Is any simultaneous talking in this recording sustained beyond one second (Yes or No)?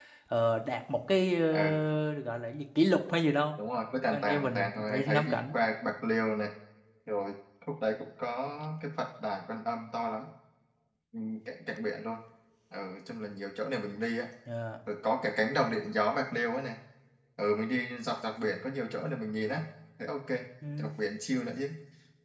Yes